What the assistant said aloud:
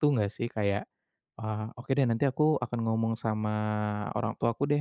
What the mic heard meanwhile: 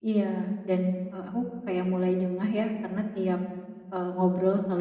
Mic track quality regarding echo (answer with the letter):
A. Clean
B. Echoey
A